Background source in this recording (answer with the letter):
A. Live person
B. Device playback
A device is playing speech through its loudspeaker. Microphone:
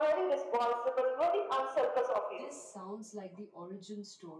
A